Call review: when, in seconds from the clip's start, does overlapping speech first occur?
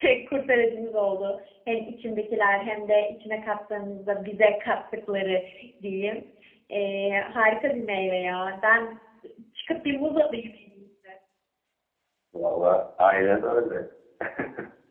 none

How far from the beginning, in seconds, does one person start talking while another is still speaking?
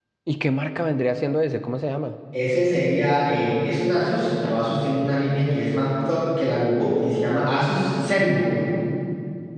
none

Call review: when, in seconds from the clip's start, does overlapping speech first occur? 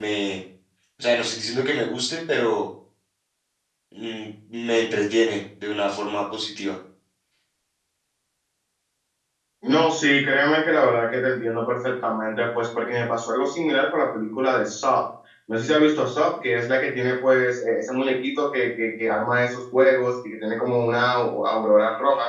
none

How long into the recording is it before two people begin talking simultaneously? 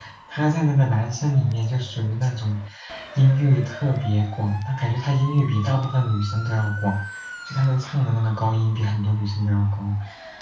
none

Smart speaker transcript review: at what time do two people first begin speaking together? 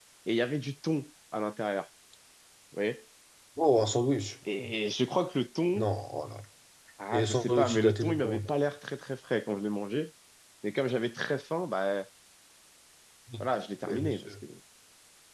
7.1 s

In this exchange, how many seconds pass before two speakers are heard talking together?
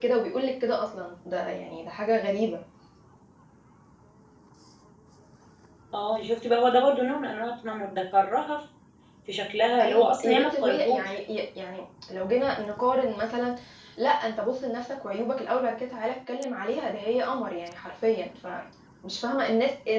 9.8 s

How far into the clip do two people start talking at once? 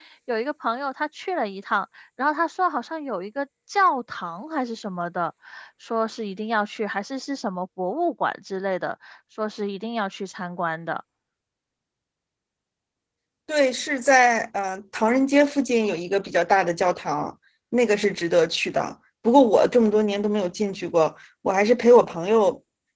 none

